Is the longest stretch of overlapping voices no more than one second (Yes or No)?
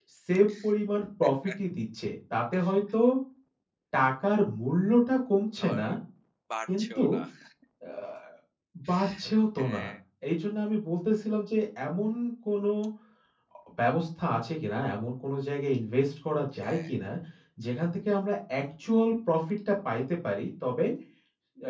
Yes